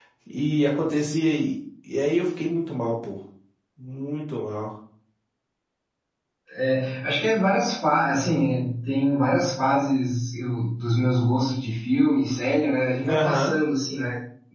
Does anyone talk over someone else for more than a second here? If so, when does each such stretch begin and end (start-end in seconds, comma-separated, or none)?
none